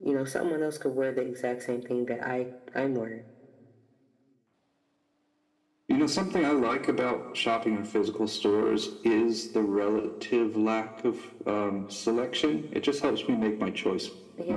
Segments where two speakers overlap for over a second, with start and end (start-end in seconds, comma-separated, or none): none